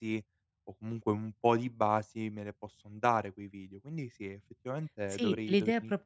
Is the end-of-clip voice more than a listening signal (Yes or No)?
Yes